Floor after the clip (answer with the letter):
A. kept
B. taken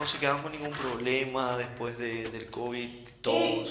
B